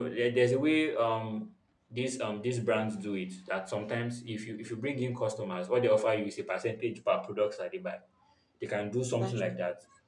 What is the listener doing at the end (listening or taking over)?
listening